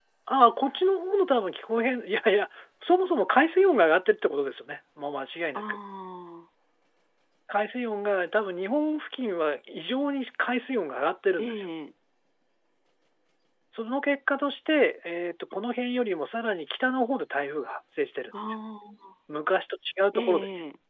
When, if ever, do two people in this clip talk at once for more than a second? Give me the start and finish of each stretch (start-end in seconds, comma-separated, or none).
none